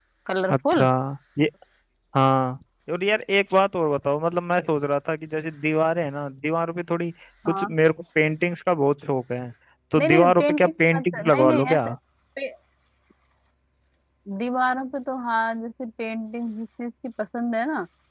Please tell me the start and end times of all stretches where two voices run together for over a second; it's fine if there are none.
10.0-11.9

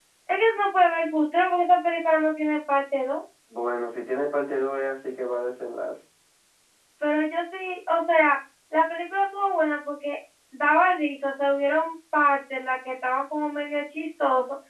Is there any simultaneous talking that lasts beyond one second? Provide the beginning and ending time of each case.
none

